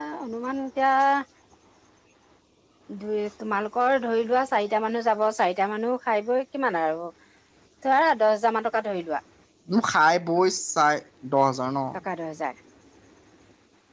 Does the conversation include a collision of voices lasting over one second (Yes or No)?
No